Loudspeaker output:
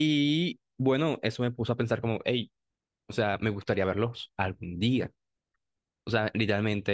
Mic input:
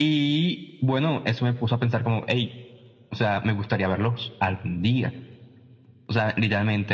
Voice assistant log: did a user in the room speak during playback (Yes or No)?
No